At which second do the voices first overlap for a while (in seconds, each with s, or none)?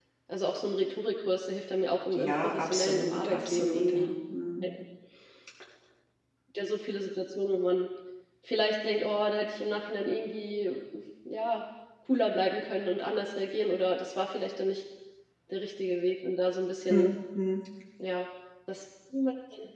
2.1 s